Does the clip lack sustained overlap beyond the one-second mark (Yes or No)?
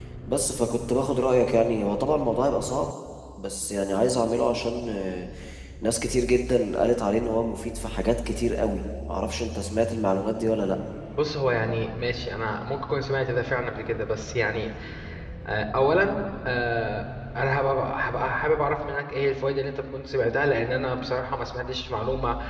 Yes